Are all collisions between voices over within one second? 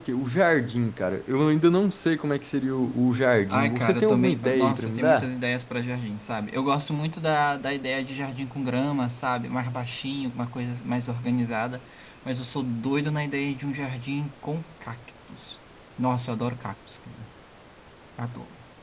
No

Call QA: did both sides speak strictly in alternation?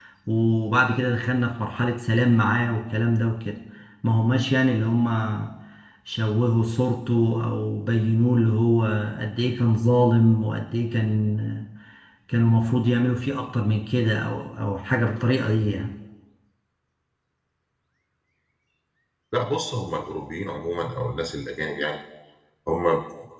Yes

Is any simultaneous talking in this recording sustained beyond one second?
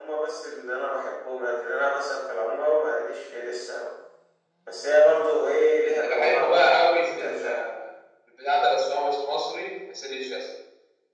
Yes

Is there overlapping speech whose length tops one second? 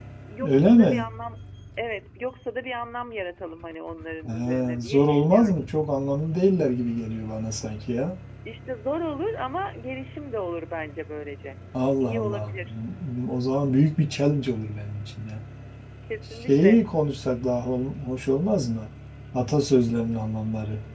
Yes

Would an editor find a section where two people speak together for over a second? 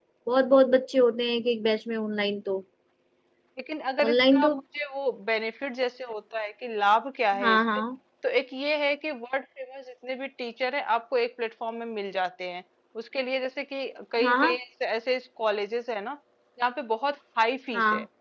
No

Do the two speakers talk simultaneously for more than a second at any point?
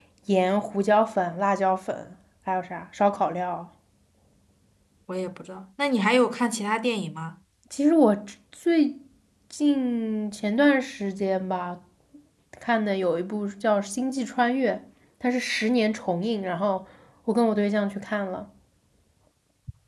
No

